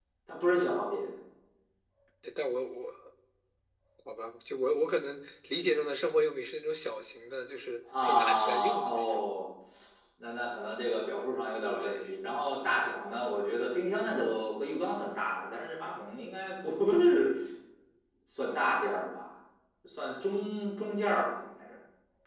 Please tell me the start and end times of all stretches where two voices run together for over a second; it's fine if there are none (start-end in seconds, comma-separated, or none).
8.0-9.2